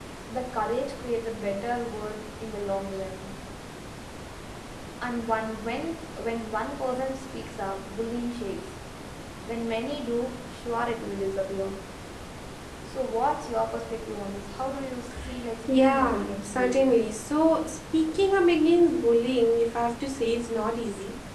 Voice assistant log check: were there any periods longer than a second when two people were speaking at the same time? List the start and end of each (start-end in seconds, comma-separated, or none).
15.7-17.0